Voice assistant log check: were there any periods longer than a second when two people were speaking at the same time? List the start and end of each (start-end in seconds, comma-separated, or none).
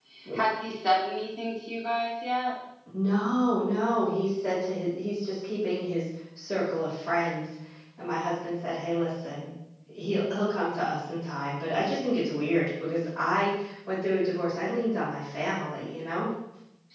none